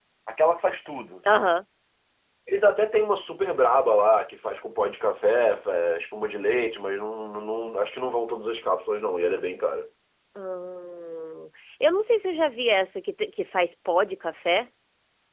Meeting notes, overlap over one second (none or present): none